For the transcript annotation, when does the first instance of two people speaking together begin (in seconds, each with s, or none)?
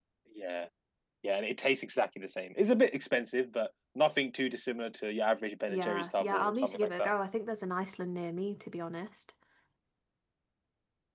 5.7 s